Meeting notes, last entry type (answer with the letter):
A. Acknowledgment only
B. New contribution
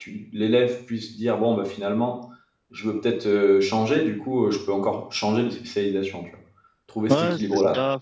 B